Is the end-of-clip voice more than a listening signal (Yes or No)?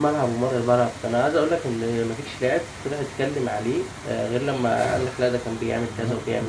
Yes